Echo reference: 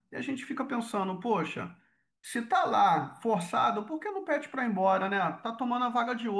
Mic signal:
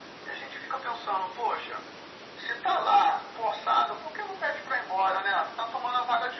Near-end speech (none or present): none